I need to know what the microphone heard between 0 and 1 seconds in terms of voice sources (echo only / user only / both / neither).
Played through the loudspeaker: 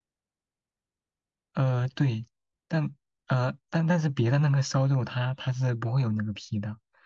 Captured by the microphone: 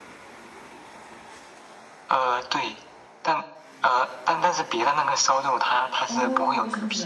neither